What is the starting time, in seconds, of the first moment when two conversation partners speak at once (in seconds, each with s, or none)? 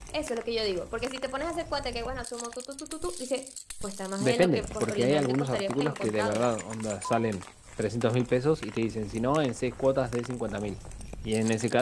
4.2 s